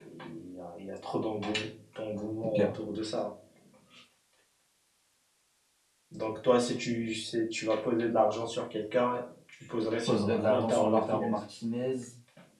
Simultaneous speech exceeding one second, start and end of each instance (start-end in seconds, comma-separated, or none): 10.1-11.3